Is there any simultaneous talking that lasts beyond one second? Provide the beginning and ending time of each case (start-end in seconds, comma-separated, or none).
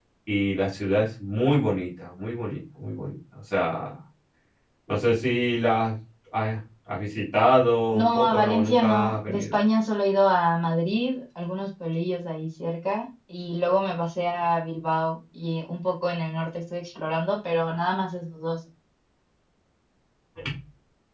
8.0-9.5